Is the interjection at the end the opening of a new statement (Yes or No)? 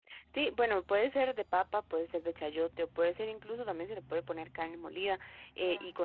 No